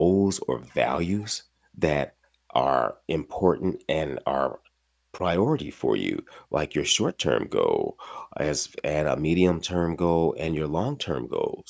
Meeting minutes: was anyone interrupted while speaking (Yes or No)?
No